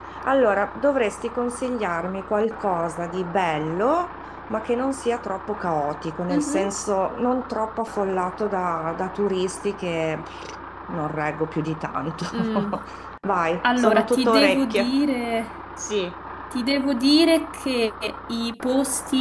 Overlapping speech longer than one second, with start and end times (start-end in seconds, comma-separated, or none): 13.6-14.9